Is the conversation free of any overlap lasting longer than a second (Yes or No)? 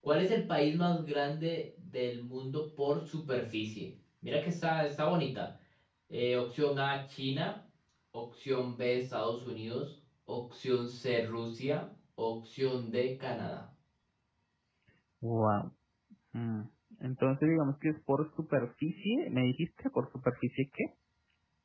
Yes